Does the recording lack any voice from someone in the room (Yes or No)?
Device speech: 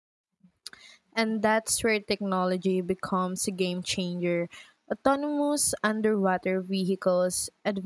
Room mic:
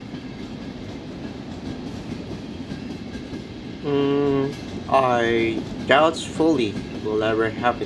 No